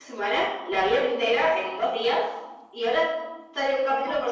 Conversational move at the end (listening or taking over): listening